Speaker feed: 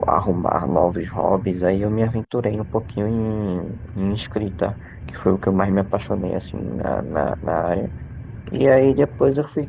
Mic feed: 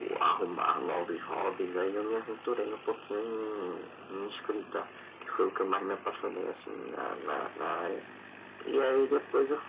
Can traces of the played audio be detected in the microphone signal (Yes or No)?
Yes